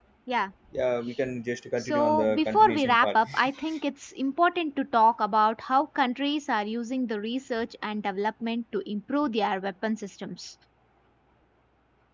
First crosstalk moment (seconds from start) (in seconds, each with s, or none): 1.8 s